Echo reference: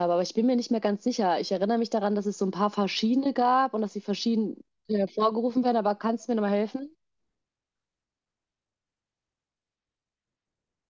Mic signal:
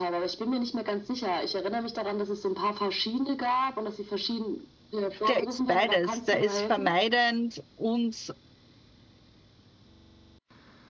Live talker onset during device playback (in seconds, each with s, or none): 5.3 s